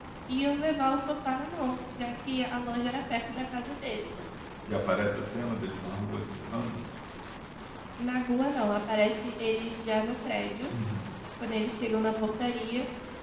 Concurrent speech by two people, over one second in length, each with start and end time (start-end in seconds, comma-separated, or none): none